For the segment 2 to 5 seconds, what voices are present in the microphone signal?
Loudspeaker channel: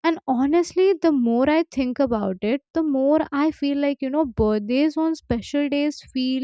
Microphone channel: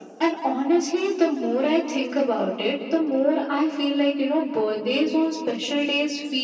echo only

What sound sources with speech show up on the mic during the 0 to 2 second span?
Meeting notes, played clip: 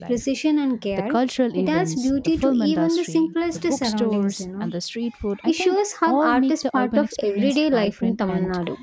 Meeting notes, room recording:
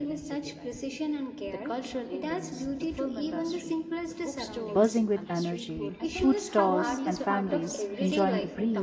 echo only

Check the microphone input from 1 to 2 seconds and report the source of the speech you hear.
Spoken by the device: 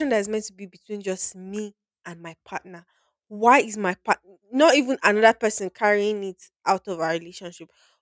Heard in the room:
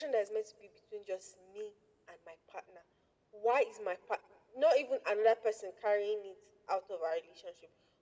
echo only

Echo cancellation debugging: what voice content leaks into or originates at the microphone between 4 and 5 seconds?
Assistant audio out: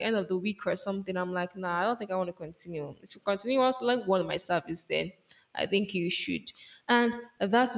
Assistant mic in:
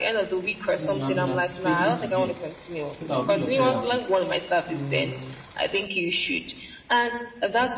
both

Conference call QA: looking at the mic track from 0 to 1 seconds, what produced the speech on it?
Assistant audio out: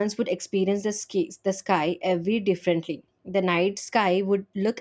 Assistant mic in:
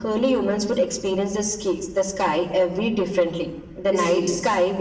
echo only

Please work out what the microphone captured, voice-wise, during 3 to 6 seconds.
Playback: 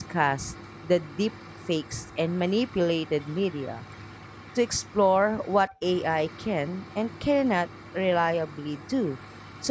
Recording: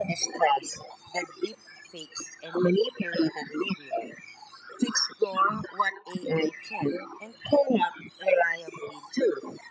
echo only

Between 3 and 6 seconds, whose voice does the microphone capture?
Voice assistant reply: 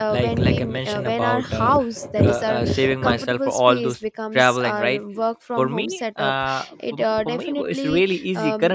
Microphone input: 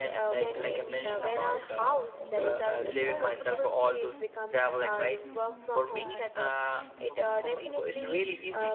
both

